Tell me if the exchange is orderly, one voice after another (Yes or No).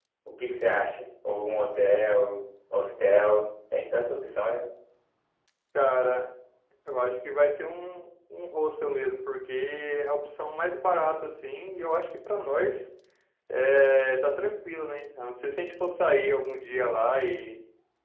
Yes